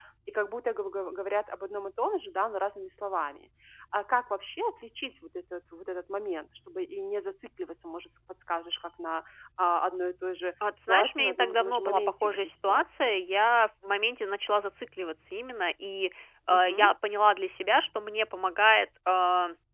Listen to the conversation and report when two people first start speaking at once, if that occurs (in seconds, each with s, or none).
10.9 s